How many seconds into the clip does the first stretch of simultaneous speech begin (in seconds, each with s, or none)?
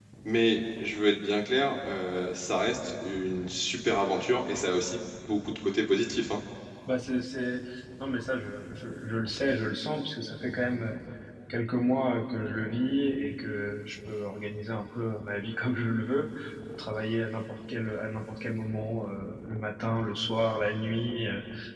none